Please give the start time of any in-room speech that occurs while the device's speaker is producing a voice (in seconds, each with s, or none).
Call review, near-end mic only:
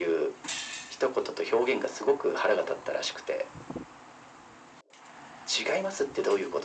none